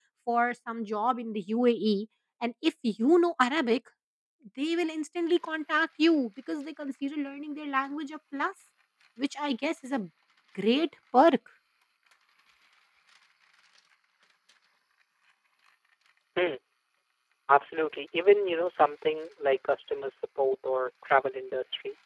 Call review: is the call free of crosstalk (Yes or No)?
Yes